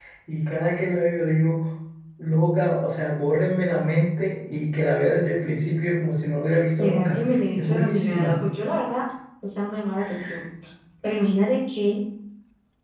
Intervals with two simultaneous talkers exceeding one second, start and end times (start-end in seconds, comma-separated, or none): 6.8-8.4